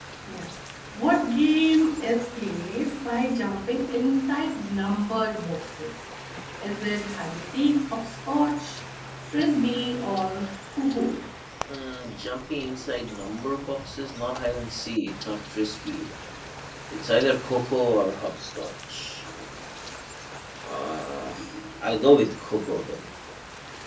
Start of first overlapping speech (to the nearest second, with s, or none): none